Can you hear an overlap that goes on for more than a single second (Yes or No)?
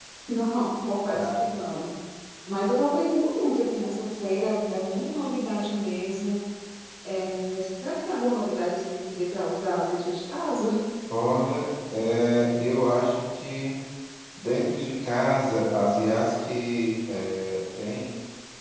No